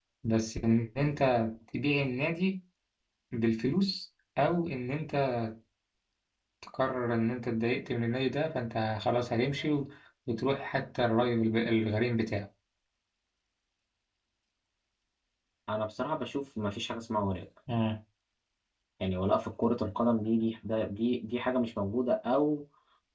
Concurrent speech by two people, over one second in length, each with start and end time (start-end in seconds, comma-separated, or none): none